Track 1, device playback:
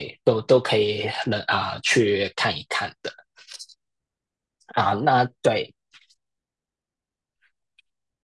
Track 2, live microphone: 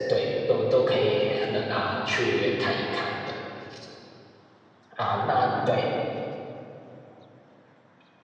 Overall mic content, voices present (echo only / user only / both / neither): echo only